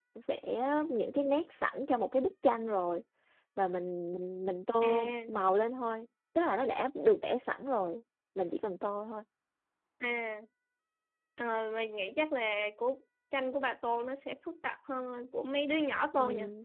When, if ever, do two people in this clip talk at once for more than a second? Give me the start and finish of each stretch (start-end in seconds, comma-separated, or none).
none